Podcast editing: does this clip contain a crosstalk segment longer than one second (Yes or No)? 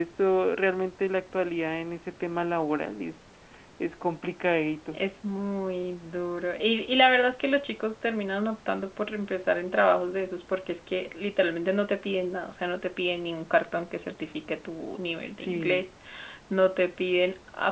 No